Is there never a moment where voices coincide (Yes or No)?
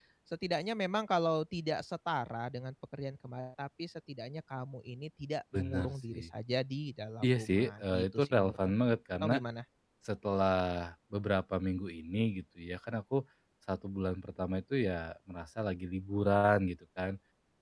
No